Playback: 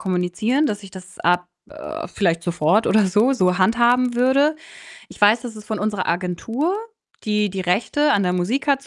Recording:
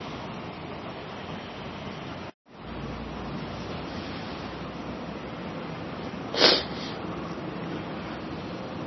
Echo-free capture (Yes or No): Yes